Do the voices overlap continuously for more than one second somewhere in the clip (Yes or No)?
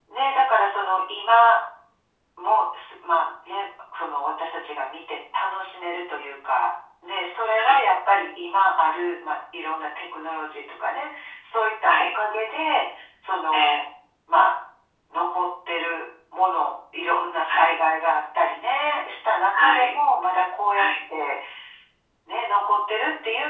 No